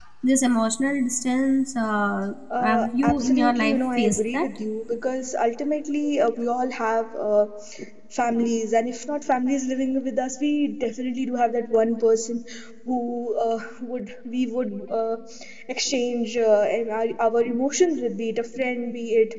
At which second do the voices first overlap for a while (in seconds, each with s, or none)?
2.5 s